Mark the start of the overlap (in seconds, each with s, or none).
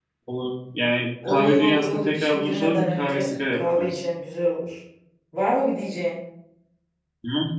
1.2 s